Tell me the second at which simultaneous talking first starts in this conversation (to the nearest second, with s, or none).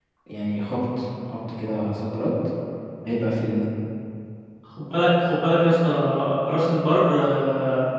none